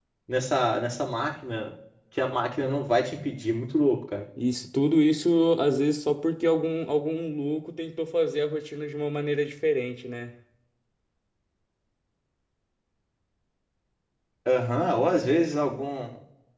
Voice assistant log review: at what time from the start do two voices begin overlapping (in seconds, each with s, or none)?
none